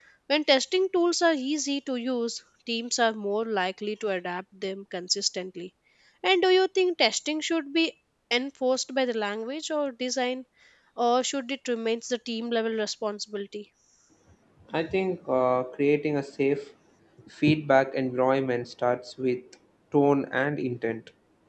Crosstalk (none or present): none